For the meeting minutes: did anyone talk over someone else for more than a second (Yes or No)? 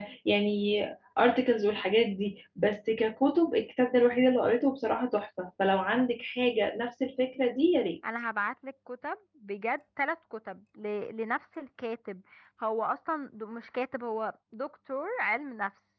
No